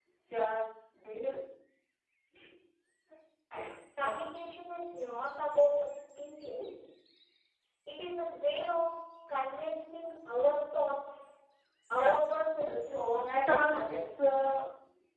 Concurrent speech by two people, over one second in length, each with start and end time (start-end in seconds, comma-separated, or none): 12.6-14.1